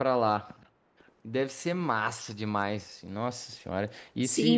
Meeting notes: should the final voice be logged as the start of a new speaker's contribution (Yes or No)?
Yes